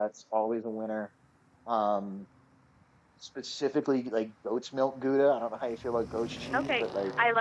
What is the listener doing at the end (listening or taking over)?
taking over